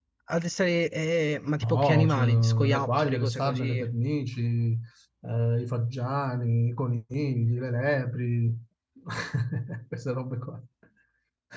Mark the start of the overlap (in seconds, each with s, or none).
1.6 s